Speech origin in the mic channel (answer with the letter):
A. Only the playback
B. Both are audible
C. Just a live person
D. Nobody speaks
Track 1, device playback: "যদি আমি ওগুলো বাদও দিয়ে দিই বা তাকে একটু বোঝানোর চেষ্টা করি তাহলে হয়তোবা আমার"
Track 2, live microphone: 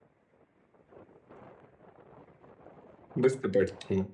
C